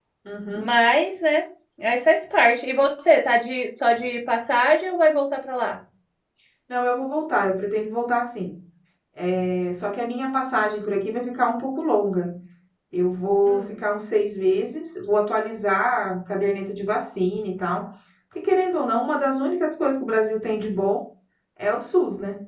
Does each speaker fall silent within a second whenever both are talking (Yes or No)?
Yes